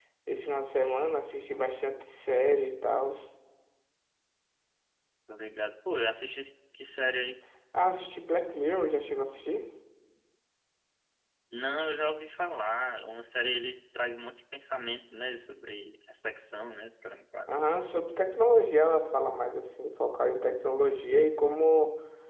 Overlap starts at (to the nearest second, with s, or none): none